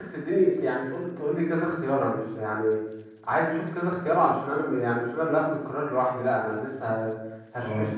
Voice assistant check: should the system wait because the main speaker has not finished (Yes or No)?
Yes